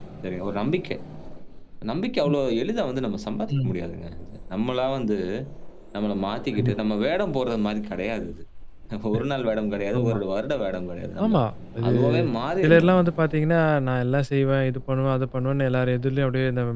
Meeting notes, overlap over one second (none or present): none